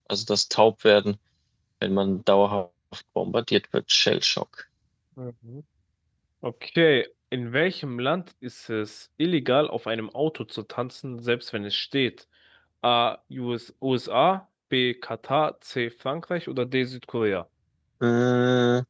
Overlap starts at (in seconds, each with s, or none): none